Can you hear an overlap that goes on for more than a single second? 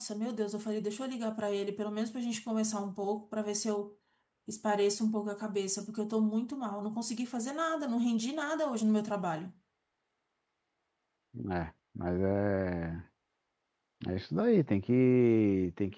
No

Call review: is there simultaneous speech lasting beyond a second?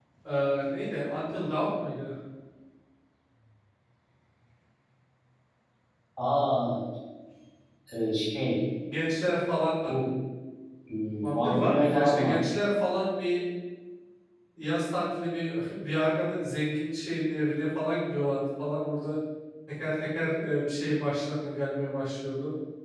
Yes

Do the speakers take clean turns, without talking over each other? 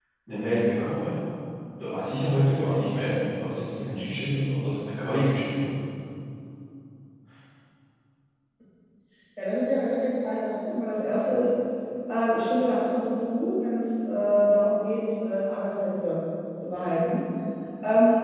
Yes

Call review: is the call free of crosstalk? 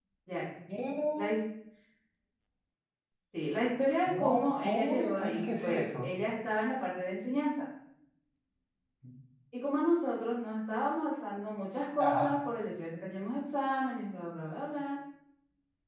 No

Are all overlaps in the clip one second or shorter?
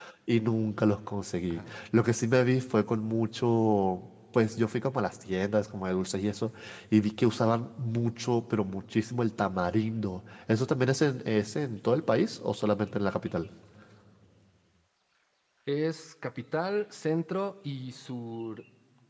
Yes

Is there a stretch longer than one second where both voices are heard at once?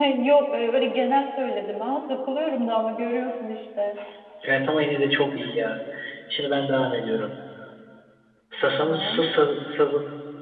No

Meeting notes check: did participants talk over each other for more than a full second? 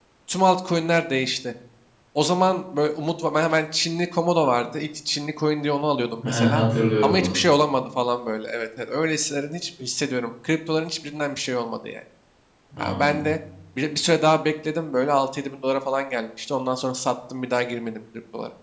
No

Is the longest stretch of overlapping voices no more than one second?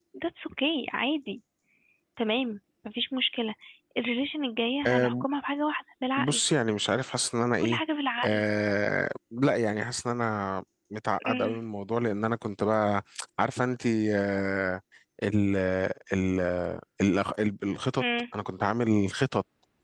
Yes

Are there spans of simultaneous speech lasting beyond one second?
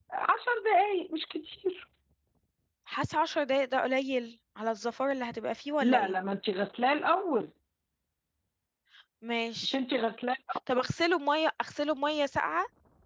No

